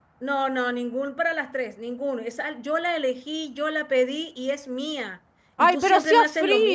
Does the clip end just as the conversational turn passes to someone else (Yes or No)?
Yes